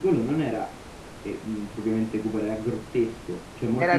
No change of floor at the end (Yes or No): Yes